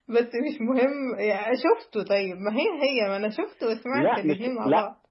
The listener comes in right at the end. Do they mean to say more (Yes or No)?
Yes